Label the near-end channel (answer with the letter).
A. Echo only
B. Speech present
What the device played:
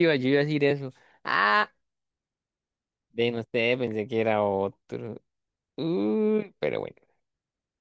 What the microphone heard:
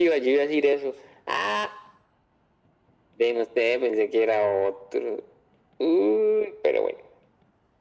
A